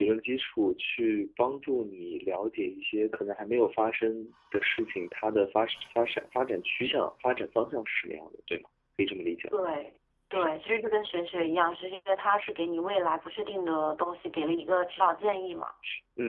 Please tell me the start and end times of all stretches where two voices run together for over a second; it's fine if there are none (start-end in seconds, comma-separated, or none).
none